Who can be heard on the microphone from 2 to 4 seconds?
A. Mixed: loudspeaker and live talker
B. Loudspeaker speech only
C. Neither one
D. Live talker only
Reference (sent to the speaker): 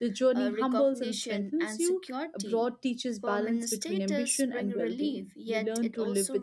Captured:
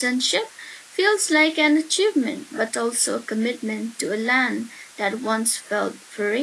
D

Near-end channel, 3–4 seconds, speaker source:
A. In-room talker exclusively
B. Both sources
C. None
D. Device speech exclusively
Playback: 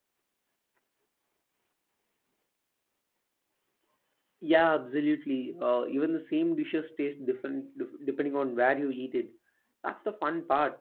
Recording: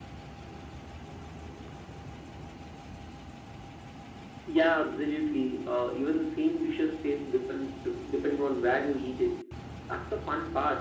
C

